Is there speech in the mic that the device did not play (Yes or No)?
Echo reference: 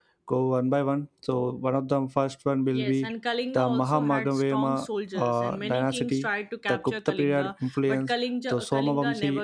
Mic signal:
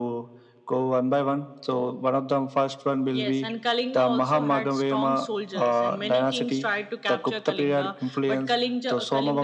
No